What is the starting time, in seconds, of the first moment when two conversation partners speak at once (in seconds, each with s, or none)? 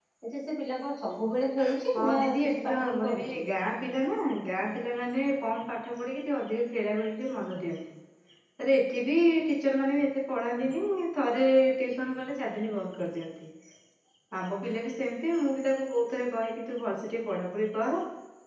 1.9 s